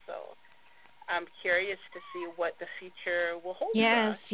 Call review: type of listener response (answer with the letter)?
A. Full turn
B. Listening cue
A